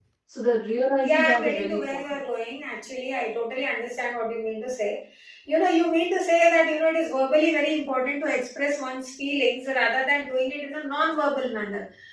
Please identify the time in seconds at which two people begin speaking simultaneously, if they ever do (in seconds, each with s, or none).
1.0 s